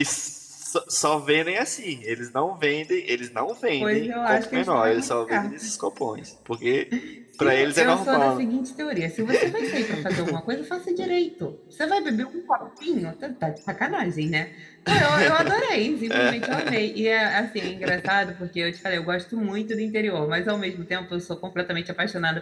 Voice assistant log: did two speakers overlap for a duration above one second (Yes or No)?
Yes